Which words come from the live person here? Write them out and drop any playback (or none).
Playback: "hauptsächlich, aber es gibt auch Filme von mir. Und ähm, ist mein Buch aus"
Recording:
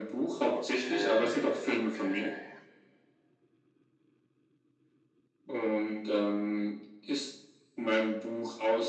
Okay, okay.